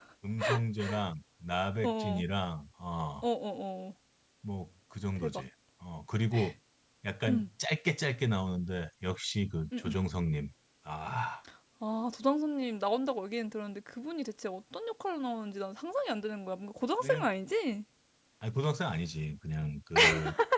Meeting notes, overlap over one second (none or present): none